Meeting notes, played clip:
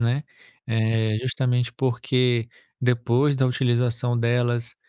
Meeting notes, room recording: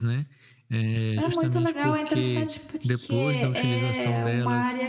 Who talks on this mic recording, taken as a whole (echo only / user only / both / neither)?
both